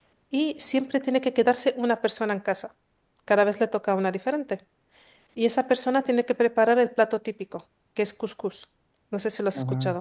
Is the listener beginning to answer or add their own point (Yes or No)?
Yes